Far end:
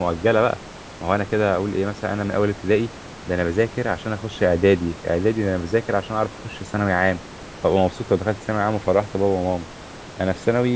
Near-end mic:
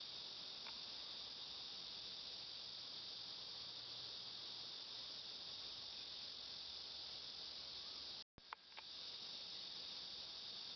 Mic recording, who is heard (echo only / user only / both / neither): neither